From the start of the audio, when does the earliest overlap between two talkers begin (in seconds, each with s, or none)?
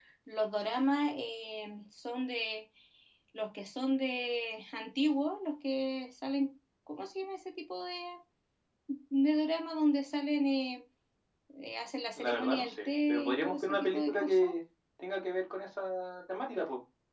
12.2 s